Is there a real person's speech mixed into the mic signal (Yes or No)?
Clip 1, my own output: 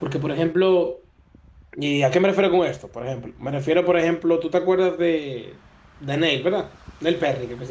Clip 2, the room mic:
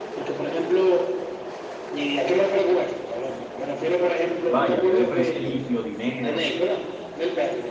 Yes